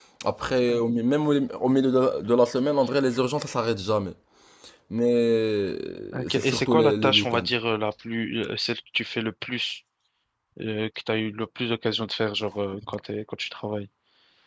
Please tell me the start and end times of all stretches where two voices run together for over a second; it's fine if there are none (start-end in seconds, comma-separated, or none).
6.1-7.5